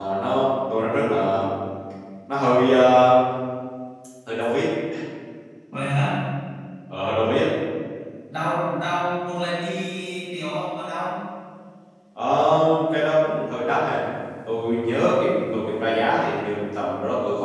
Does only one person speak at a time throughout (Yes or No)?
Yes